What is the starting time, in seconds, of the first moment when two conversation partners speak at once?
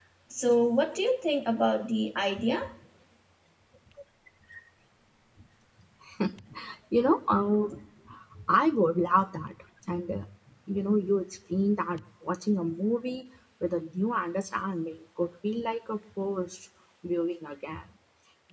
none

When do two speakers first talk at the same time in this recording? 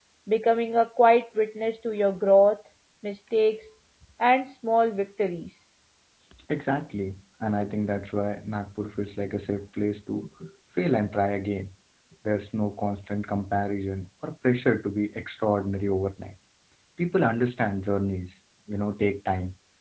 none

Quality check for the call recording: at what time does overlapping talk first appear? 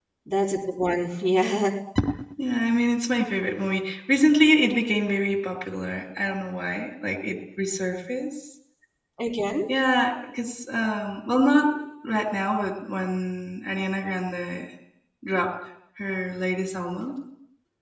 none

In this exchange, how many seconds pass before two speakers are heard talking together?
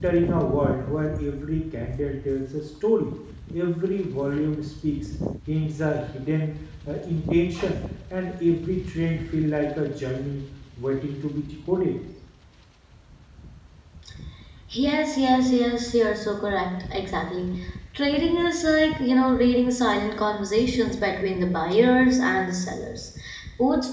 none

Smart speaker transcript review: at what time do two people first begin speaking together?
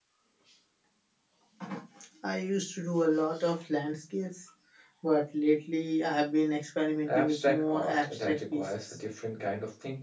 7 s

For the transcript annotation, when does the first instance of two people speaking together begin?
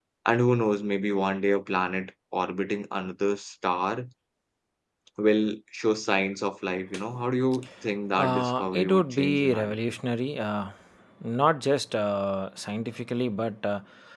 8 s

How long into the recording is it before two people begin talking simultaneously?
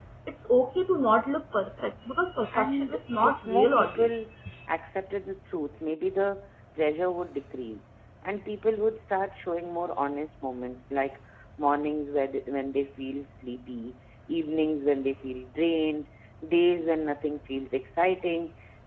3 s

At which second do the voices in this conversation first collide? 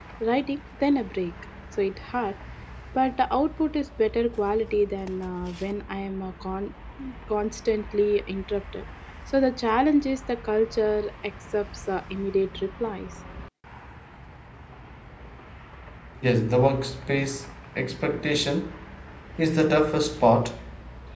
none

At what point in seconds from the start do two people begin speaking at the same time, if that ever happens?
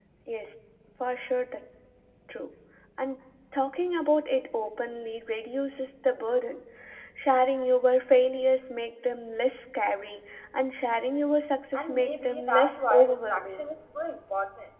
12 s

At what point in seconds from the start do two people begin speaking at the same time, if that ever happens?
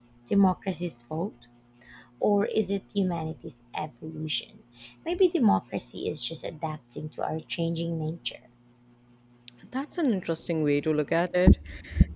none

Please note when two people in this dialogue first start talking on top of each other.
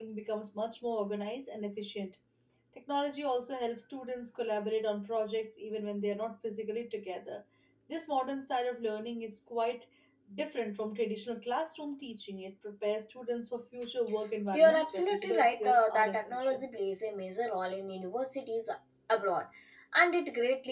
15 s

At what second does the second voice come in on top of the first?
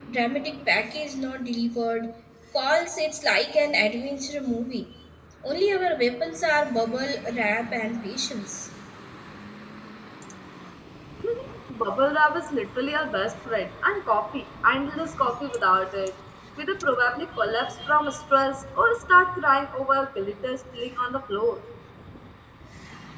none

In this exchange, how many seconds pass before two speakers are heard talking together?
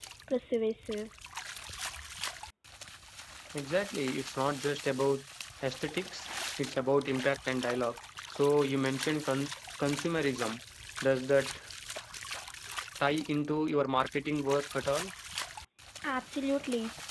none

